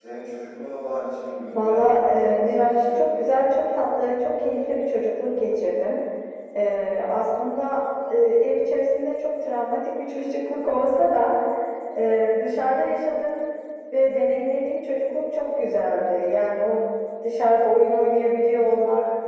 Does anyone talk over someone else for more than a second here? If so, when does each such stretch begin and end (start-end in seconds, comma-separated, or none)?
1.5-3.4